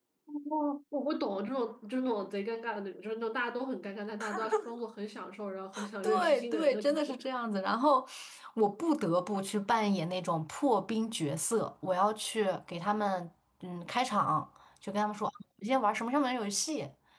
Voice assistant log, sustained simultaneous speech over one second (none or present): present